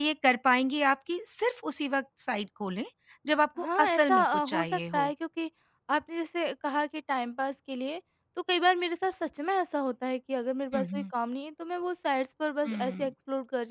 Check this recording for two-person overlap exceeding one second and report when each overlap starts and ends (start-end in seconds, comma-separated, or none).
3.6-5.1